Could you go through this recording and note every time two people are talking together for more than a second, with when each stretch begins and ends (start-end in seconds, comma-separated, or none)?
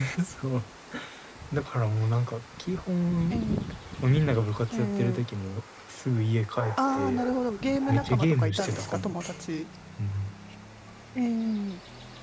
7.9-9.2